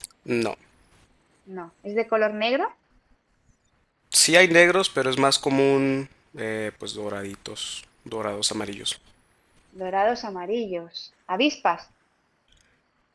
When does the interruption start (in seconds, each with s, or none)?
none